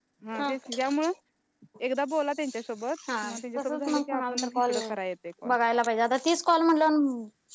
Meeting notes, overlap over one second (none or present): present